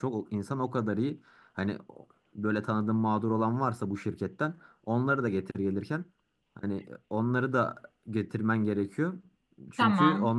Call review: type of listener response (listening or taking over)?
listening